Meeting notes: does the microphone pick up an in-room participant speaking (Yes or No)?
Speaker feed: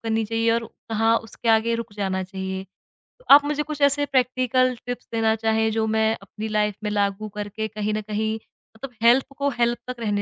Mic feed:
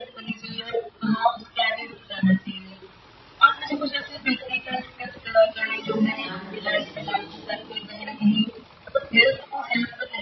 Yes